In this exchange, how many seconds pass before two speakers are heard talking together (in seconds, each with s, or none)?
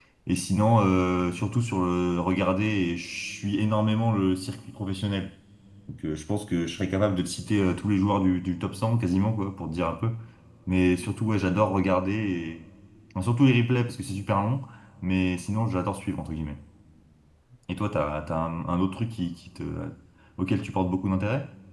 none